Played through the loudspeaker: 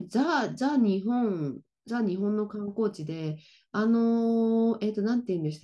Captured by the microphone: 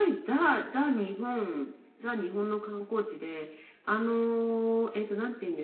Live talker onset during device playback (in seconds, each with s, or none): none